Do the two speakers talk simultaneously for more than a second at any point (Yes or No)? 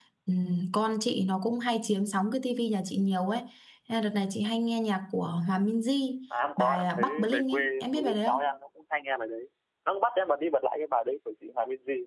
Yes